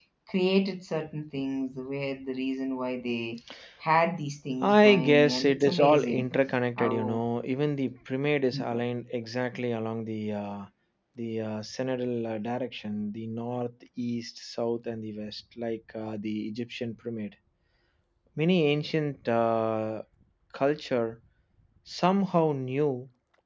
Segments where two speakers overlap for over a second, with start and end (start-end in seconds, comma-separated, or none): 4.6-6.3